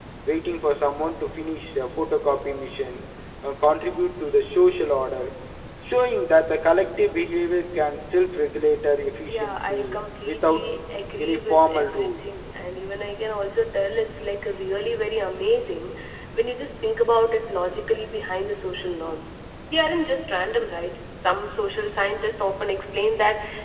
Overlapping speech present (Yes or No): Yes